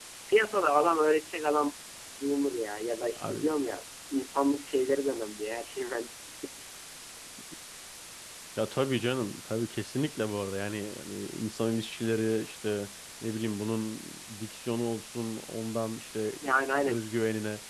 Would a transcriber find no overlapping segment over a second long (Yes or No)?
Yes